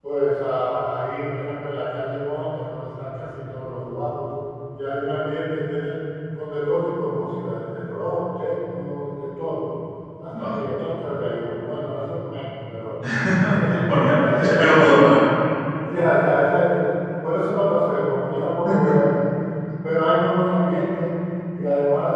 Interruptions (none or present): present